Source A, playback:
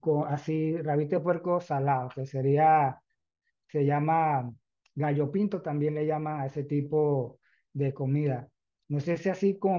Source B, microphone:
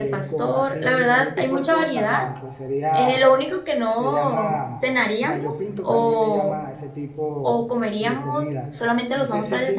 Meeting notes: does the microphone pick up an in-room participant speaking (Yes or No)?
Yes